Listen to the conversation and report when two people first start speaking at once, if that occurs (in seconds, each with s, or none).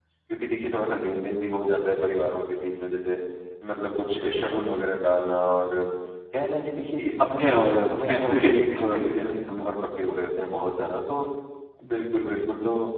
7.2 s